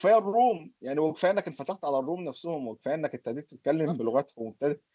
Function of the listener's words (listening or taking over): listening